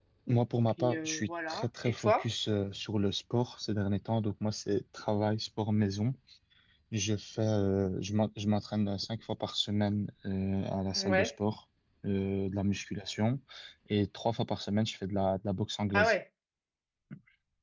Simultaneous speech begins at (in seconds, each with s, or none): 0.8 s